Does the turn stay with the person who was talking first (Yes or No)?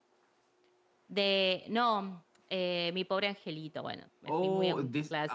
No